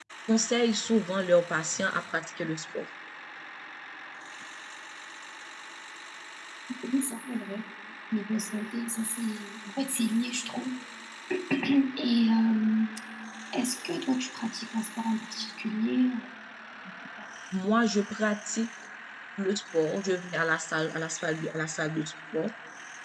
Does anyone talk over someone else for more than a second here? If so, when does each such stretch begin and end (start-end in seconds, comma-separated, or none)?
none